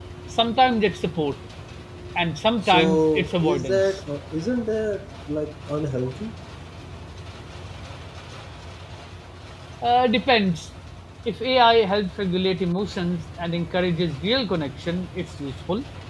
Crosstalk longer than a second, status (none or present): present